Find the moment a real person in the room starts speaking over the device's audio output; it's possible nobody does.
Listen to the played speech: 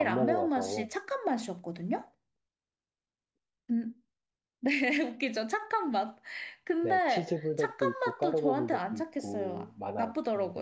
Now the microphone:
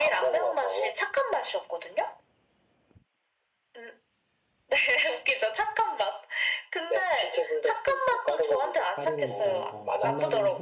8.9 s

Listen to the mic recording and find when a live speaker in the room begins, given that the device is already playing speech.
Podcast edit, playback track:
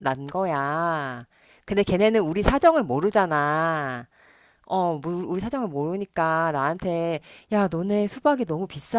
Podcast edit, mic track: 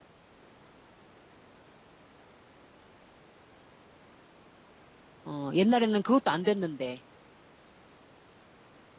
5.2 s

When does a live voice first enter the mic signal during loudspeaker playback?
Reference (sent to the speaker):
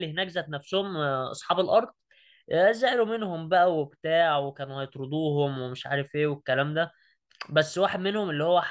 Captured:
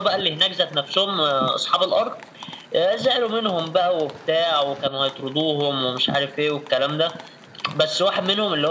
none

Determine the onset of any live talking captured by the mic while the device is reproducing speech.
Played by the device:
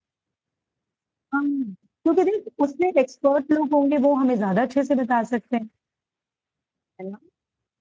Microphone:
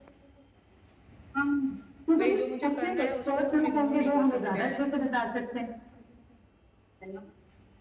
2.2 s

